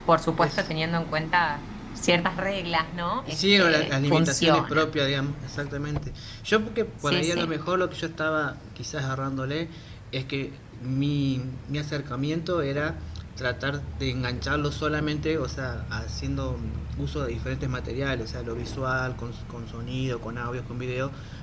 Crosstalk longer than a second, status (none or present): present